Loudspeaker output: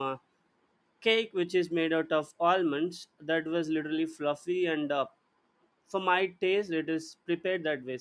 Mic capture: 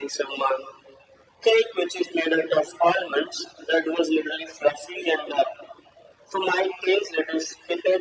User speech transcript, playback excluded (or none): none